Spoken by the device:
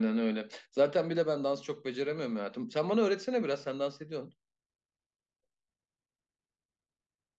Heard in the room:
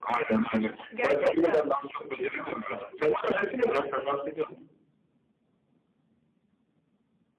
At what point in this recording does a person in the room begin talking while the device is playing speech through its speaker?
0.9 s

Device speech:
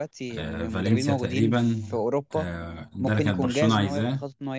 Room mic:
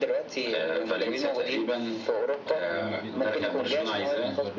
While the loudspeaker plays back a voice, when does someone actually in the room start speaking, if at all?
2.5 s

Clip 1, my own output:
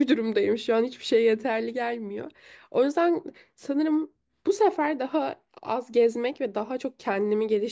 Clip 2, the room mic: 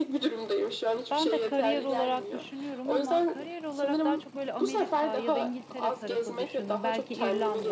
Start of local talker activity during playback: 1.1 s

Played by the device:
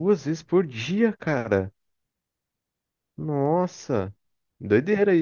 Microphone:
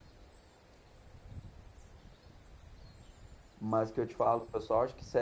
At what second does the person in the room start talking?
3.6 s

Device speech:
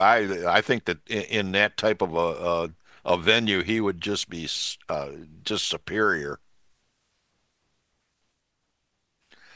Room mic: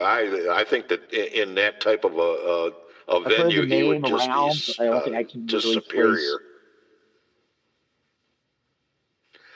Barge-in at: 3.2 s

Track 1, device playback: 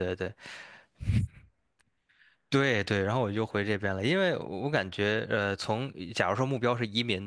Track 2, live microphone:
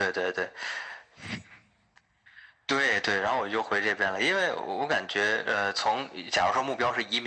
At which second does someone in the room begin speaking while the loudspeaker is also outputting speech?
none

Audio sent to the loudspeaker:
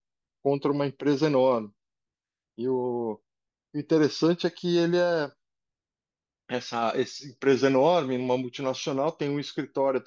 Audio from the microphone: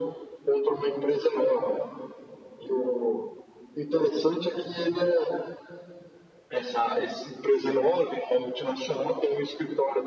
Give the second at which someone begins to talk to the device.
none

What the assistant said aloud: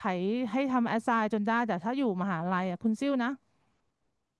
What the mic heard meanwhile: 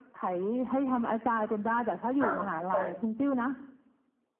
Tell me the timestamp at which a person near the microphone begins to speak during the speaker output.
2.2 s

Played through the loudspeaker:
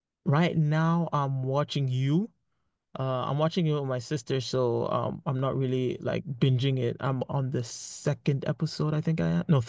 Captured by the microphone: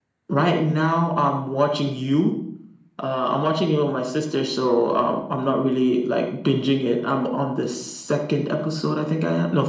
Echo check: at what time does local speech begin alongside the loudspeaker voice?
none

